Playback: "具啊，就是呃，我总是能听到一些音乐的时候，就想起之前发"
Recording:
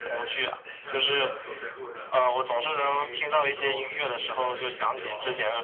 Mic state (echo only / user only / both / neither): both